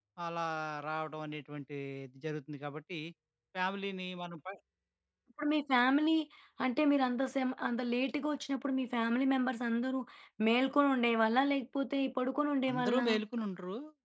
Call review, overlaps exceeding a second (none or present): none